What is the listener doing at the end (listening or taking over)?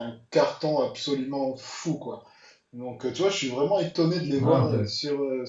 listening